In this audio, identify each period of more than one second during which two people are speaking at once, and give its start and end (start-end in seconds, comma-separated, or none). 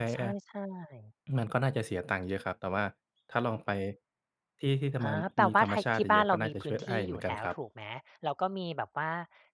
5.0-7.5